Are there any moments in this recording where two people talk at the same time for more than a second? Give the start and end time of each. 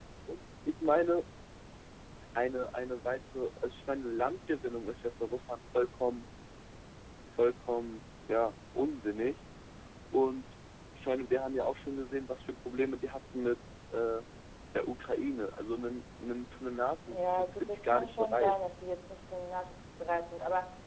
17.1-18.5

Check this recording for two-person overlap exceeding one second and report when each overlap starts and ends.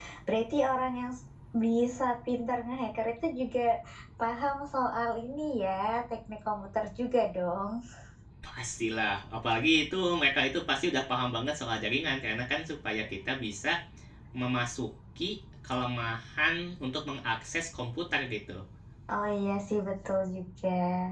none

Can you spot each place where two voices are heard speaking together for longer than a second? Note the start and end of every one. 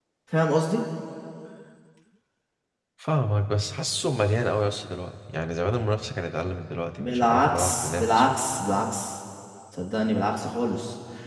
7.0-8.2

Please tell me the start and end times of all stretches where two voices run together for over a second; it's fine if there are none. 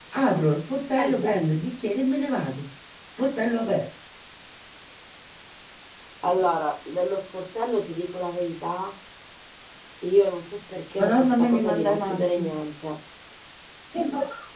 11.0-12.5

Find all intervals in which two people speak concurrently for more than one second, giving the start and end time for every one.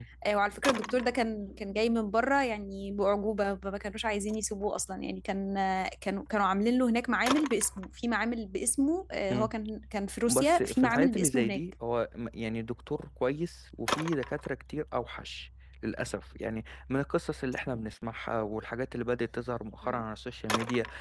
10.3-11.6

